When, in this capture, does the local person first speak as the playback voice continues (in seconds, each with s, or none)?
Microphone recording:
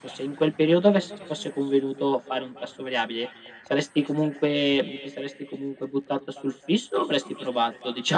none